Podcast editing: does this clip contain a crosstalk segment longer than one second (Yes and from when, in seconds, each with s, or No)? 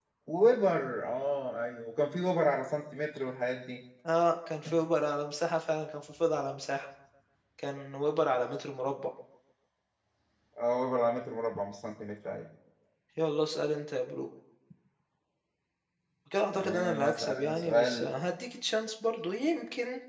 Yes, from 16.5 s